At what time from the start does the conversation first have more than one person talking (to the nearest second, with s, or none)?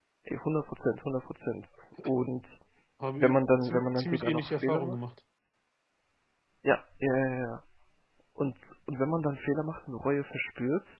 3 s